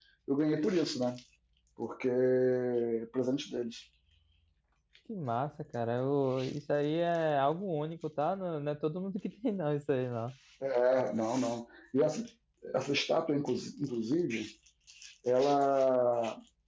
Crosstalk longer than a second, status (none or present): none